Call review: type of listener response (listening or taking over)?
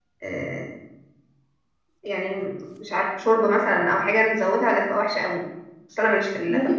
taking over